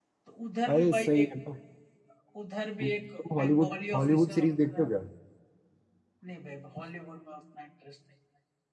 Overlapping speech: Yes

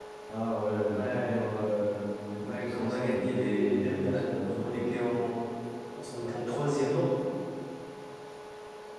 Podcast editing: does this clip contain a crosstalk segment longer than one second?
Yes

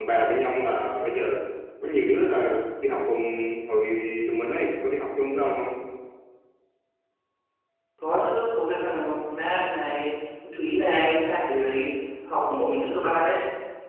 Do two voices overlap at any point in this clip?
No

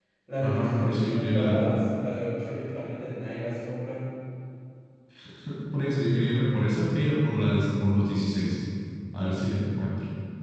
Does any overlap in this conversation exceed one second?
Yes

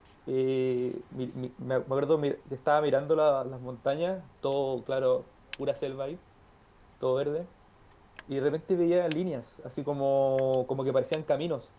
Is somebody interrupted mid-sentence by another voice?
No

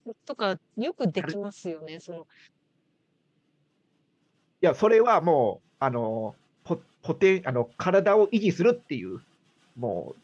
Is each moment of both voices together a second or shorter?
Yes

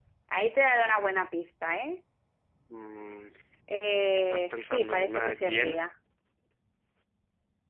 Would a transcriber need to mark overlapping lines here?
Yes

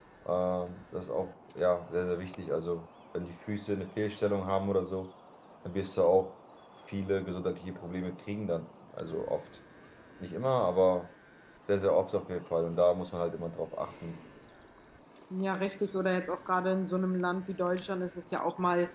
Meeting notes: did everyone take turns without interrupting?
Yes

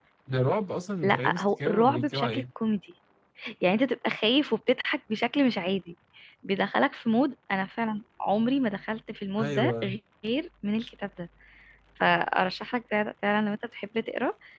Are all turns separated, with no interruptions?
No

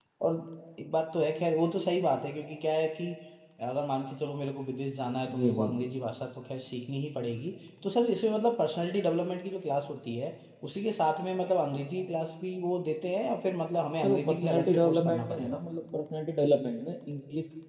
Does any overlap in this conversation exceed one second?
Yes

